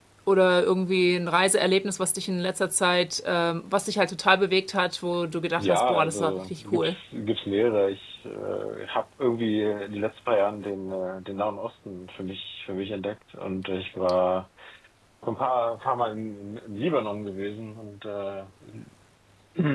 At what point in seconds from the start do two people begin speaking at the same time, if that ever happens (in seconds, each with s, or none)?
5.6 s